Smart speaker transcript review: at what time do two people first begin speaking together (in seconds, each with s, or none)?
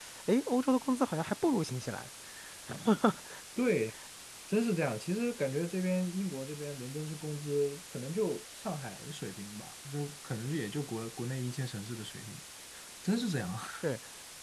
none